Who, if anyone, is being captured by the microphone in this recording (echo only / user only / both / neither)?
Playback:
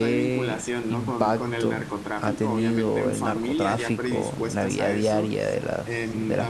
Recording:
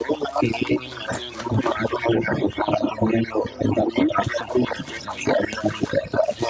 echo only